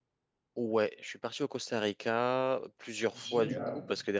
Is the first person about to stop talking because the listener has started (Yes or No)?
No